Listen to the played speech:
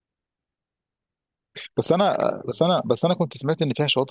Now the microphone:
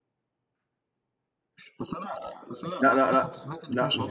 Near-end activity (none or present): present